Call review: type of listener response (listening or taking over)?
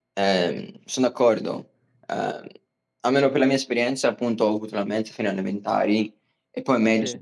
listening